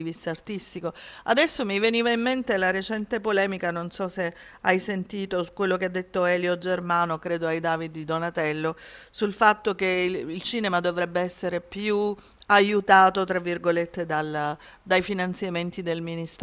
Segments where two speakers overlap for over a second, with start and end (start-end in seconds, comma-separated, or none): none